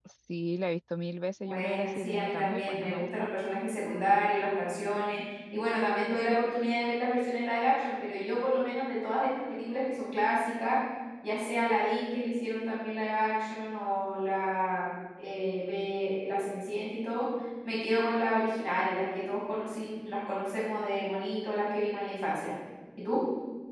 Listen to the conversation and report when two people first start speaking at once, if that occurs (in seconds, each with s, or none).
1.4 s